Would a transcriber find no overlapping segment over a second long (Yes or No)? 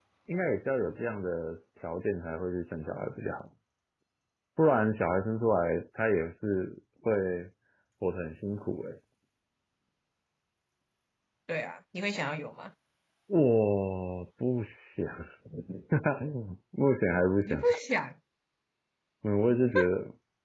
Yes